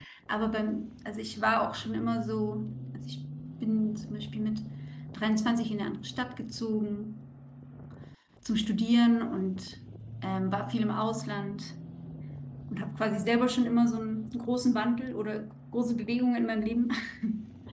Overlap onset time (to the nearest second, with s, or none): none